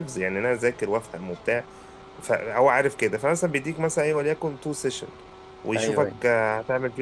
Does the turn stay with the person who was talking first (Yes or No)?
Yes